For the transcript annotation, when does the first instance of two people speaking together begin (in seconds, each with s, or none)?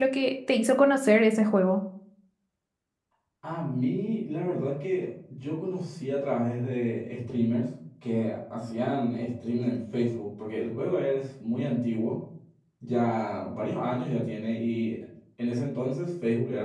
none